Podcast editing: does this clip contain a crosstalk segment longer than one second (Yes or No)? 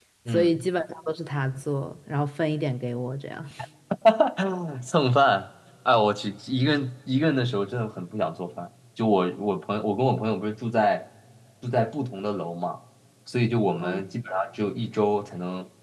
No